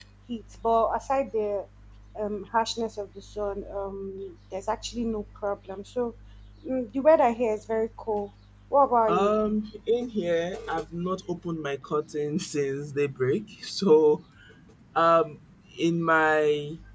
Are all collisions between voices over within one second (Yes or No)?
Yes